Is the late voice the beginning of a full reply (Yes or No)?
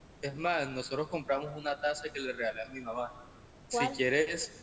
No